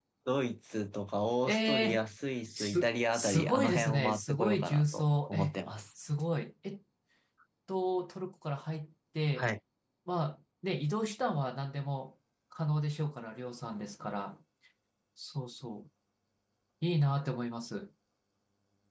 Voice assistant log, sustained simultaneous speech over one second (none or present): present